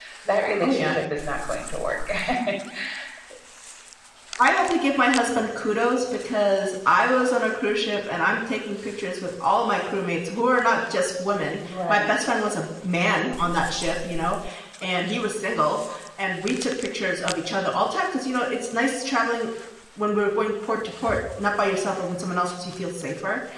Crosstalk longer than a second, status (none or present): none